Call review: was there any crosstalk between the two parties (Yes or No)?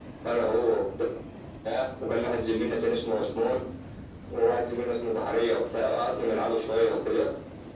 No